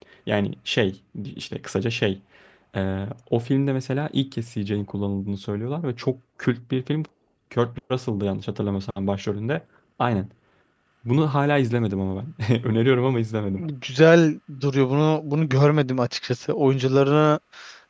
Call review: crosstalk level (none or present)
none